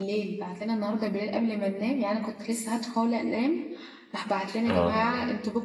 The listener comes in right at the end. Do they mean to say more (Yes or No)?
No